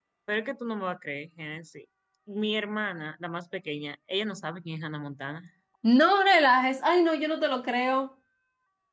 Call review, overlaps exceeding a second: none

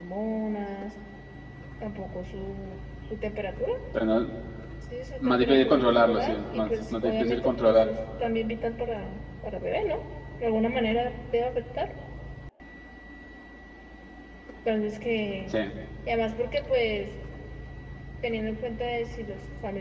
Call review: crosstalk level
present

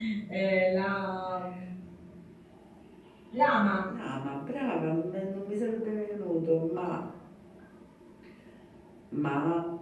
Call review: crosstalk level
none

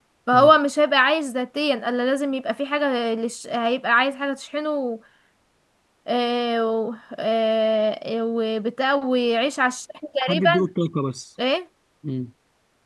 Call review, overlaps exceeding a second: none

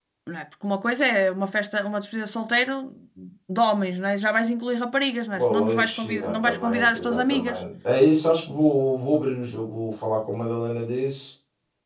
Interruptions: present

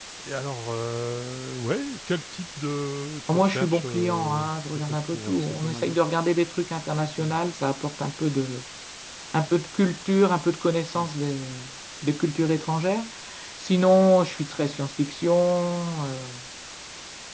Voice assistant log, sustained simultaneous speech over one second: present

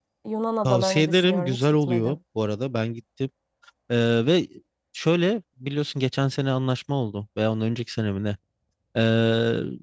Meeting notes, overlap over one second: present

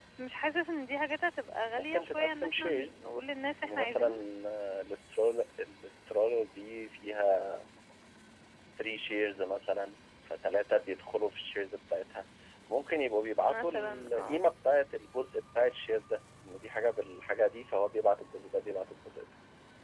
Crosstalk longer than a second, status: present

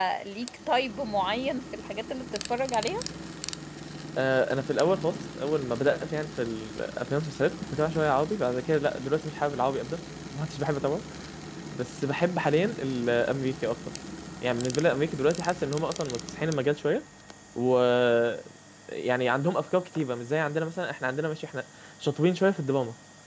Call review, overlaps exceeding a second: none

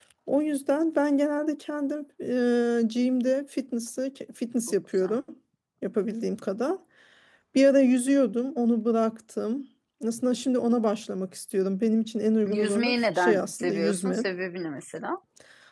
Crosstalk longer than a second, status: present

